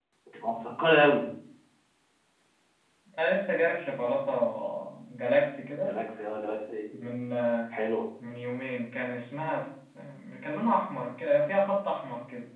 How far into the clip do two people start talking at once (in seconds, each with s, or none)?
none